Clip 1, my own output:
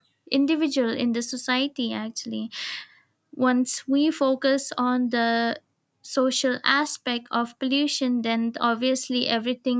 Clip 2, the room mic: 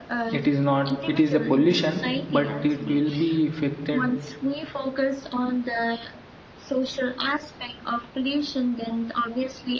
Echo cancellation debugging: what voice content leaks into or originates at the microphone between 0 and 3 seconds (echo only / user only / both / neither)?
both